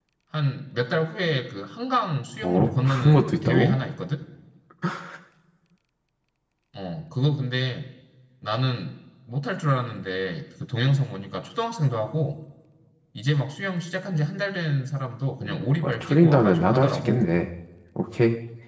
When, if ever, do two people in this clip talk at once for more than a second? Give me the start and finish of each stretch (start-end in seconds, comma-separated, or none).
2.4-3.8, 15.4-17.2